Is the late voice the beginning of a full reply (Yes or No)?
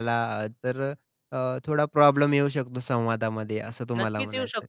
Yes